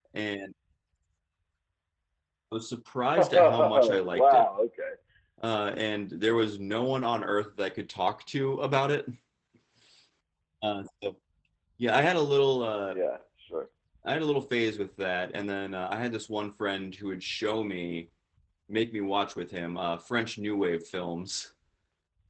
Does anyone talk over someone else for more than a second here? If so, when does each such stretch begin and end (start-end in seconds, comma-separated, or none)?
3.2-4.5